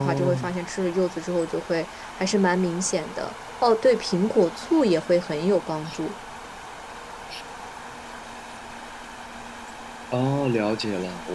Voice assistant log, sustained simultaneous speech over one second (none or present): none